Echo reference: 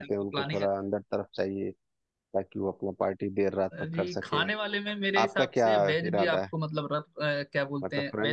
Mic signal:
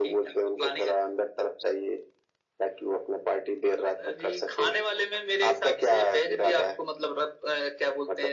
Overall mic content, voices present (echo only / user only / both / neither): echo only